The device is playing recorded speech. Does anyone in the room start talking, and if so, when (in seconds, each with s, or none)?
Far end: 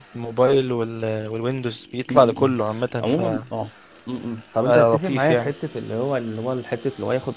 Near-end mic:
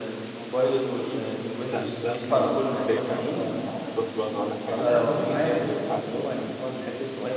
1.0 s